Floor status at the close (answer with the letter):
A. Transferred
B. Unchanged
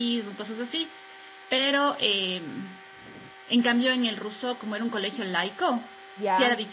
B